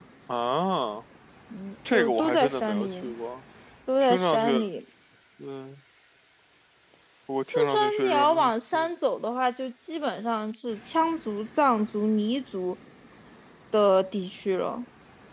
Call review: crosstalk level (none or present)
present